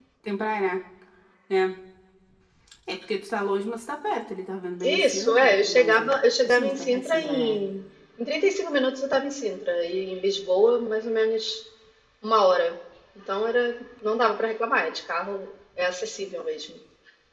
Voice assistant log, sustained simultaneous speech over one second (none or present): present